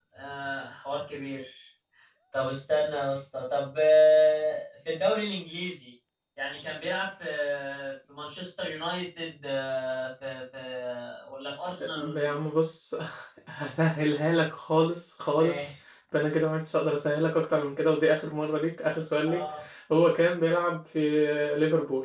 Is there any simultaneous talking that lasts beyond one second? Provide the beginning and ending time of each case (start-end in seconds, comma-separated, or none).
none